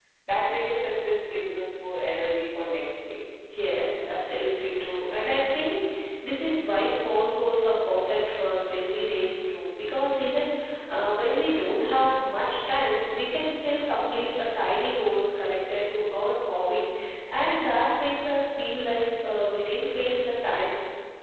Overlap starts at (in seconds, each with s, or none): none